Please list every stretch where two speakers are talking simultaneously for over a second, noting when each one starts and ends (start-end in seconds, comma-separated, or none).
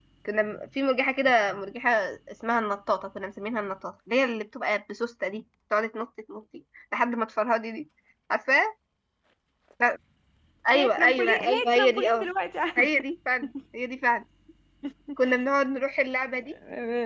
10.7-12.3